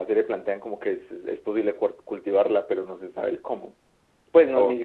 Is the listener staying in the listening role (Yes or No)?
Yes